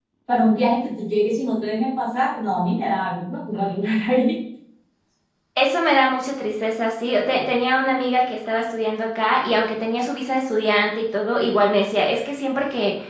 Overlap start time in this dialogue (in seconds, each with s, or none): none